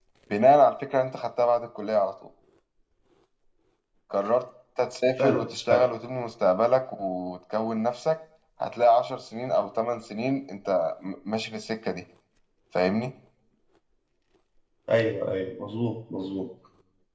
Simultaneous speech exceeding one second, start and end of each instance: none

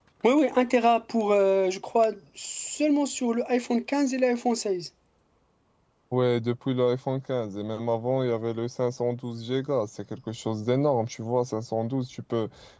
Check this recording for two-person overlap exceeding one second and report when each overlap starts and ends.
none

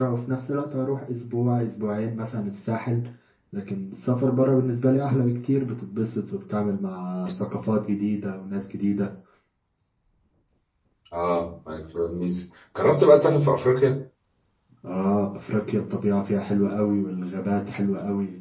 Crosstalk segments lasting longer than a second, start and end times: none

